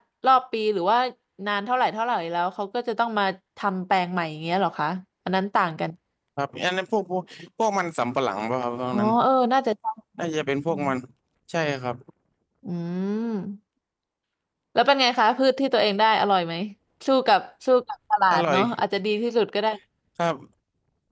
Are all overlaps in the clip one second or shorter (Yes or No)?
Yes